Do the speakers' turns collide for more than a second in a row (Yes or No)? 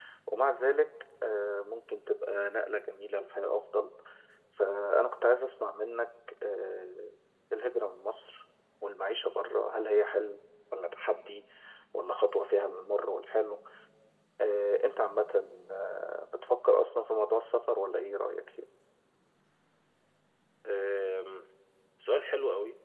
No